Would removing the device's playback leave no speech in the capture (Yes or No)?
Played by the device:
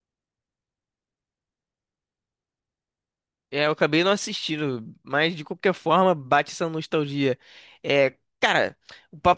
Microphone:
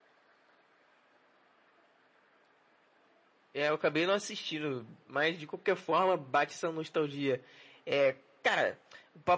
Yes